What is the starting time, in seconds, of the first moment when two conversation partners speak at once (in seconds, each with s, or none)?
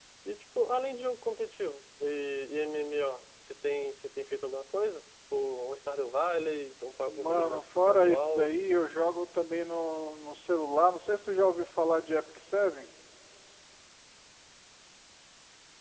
7.1 s